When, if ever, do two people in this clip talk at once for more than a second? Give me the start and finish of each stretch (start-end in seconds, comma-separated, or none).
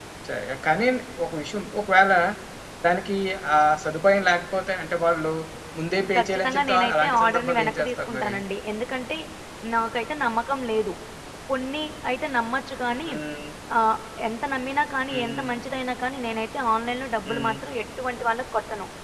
6.2-8.3